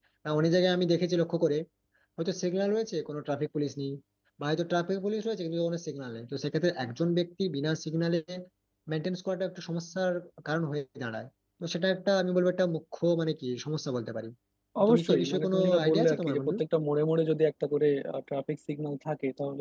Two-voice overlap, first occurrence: 15 s

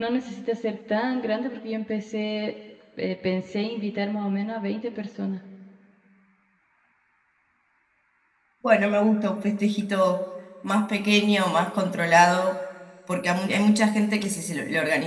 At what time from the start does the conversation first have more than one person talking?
none

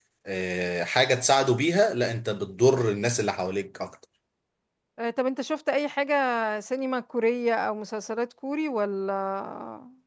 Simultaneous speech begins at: none

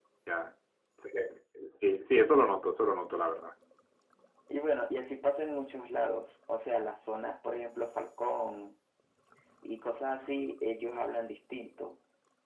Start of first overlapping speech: none

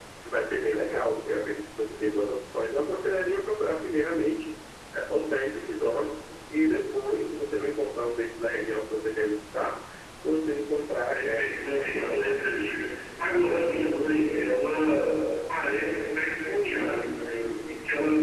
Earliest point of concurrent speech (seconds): 11 s

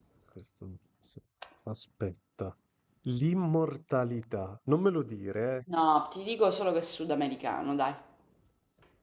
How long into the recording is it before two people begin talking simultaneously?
none

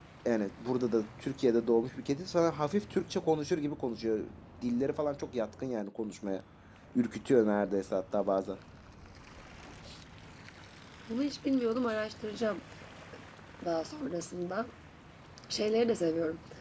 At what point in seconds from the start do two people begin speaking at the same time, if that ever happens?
none

